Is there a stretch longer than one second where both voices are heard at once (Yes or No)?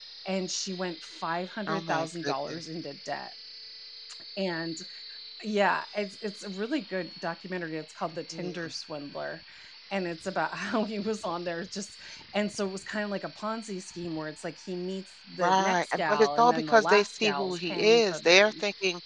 Yes